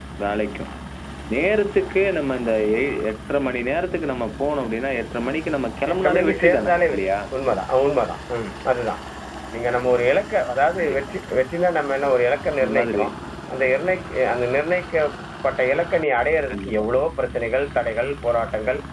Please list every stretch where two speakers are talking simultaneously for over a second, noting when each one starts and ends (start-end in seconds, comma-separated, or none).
5.9-7.2